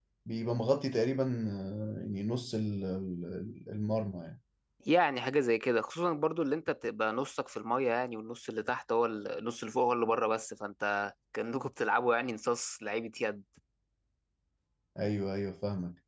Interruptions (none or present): none